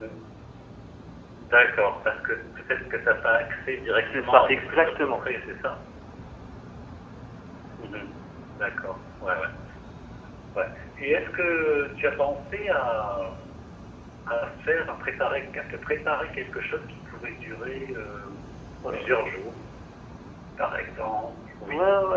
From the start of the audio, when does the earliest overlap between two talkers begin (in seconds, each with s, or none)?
4.0 s